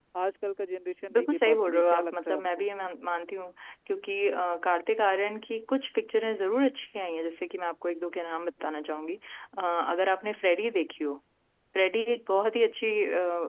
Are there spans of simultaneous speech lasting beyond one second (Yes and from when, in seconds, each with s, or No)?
Yes, from 1.1 s